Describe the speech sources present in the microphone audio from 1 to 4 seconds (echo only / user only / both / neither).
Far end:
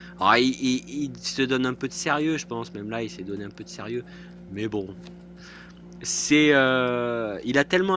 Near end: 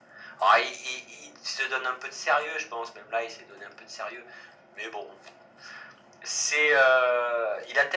echo only